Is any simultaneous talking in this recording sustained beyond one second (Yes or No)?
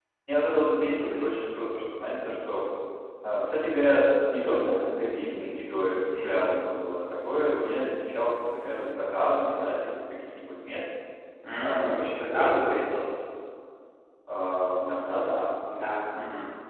Yes